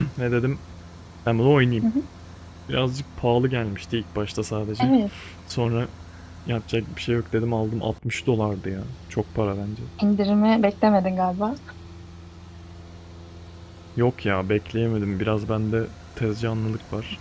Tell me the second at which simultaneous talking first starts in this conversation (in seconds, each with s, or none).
none